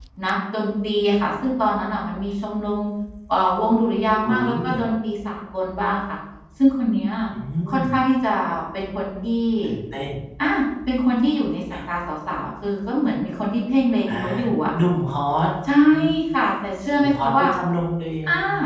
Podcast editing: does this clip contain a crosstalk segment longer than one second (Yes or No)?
No